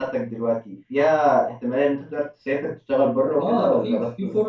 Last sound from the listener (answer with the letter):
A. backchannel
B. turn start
B